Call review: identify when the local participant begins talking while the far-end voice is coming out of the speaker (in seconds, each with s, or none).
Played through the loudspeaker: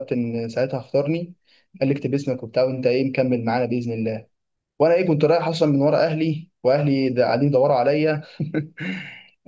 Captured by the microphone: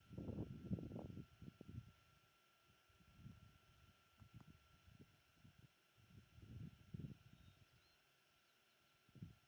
none